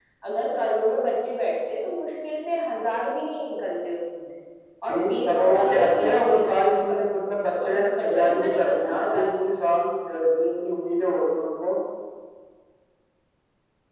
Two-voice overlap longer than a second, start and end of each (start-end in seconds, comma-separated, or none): 4.9-7.2, 7.6-9.5